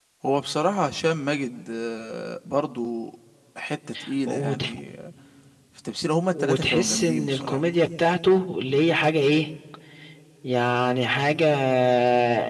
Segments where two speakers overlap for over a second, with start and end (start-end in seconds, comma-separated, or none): 6.3-7.6